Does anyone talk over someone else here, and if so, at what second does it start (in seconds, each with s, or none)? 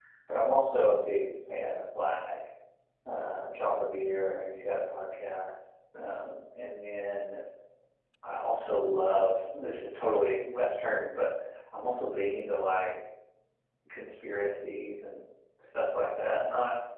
none